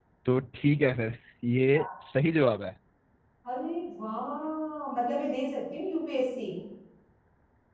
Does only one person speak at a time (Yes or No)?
Yes